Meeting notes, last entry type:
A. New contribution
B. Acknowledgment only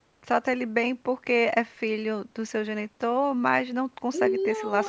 A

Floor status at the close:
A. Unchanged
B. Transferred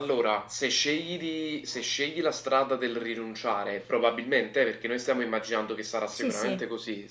A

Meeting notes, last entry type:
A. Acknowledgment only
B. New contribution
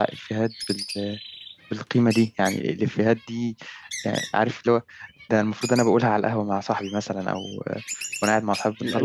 B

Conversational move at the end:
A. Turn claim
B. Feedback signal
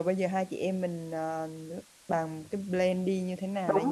A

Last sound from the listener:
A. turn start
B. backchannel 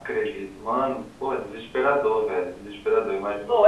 A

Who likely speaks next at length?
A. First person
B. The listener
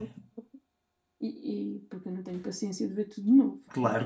B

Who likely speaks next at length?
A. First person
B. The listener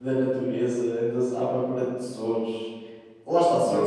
A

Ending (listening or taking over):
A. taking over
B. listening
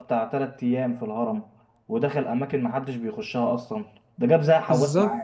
A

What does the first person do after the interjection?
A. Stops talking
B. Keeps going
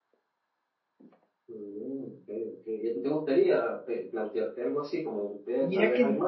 A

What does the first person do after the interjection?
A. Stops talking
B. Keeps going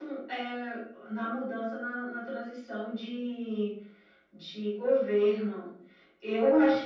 B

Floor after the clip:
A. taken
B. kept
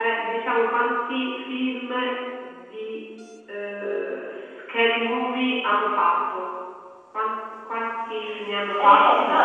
A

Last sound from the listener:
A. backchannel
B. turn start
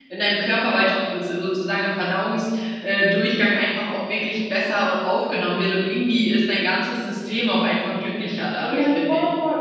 B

